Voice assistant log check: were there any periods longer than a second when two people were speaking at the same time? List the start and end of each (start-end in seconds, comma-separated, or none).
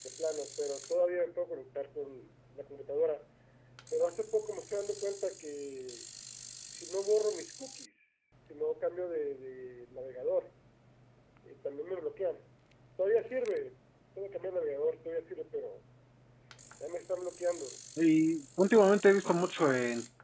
none